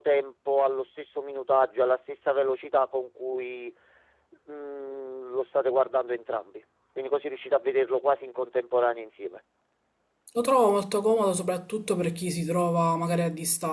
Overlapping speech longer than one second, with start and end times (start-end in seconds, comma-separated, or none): none